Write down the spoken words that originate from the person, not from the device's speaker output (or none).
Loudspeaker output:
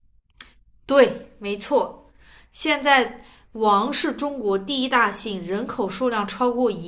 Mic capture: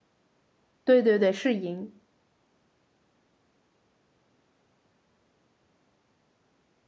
对对对，是嬴。